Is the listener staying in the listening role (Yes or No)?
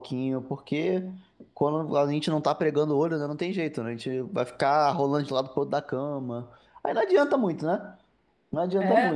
No